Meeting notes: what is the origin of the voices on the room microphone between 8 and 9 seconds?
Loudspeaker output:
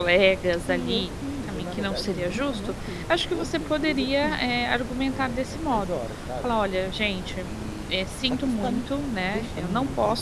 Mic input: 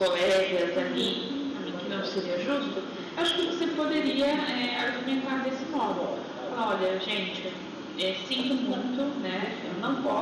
echo only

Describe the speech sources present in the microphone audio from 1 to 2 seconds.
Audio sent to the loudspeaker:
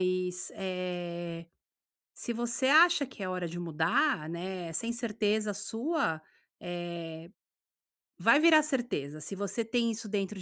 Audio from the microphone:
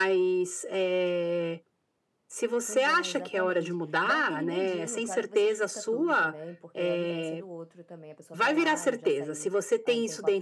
echo only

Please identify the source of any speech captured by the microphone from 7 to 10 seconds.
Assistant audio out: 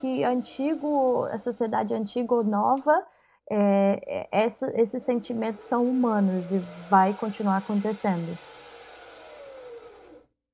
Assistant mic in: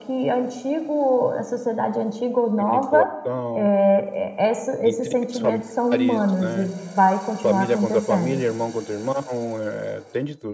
both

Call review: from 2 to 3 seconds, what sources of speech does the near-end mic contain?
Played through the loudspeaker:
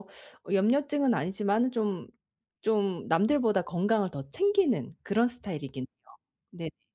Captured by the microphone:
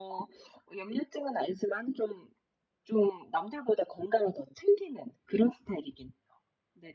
echo only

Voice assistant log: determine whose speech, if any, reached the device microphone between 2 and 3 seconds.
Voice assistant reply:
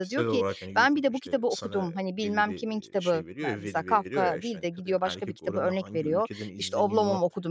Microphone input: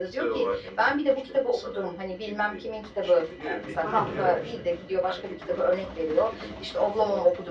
echo only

